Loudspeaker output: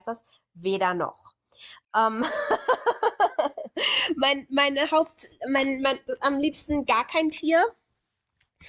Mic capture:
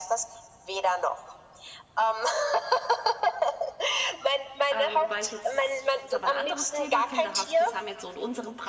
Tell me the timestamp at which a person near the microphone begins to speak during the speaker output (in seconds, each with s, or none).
4.7 s